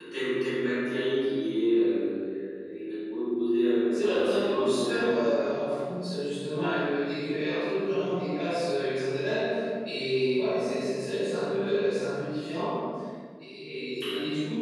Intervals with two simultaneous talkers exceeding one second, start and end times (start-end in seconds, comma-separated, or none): 4.0-5.4